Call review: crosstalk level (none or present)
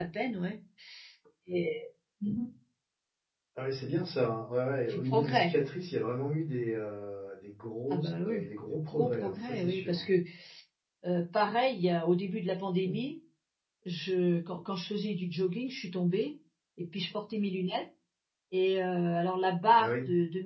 present